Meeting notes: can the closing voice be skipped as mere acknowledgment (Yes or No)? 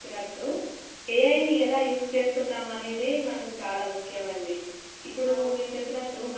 Yes